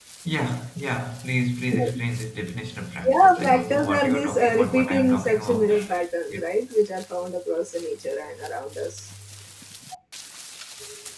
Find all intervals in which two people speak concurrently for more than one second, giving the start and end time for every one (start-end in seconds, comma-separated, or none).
3.0-5.7